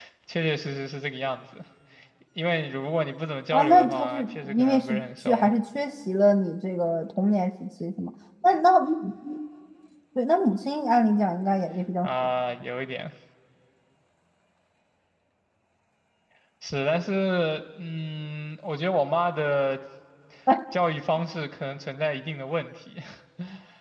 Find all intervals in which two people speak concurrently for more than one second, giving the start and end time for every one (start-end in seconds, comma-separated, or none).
3.5-5.5